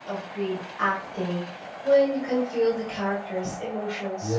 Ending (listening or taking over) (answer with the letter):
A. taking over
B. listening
A